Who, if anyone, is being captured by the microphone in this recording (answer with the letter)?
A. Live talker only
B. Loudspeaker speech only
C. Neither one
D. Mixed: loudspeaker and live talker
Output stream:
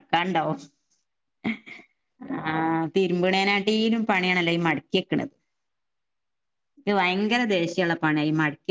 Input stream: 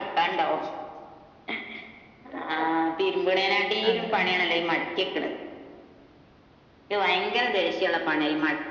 D